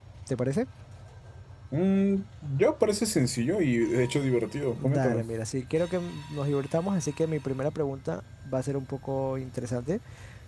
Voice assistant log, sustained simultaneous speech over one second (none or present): none